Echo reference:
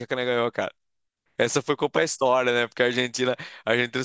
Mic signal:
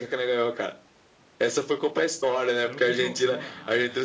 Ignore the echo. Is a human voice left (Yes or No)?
Yes